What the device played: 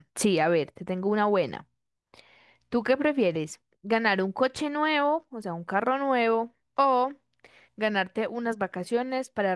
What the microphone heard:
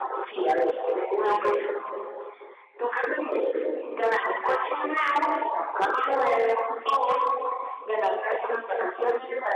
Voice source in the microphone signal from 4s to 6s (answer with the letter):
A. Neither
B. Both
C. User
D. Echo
D